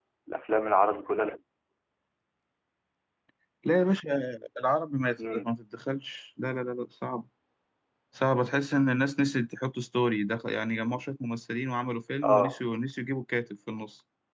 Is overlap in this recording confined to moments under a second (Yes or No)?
Yes